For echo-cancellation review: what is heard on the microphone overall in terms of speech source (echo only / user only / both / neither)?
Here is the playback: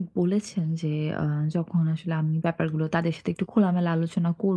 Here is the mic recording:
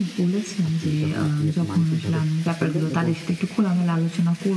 both